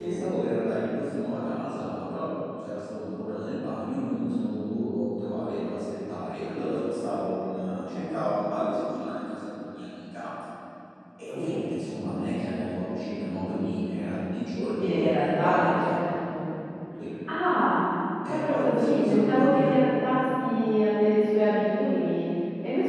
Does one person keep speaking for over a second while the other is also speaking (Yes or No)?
Yes